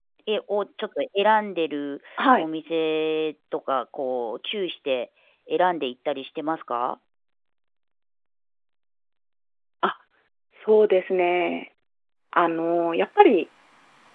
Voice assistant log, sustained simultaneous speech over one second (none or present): none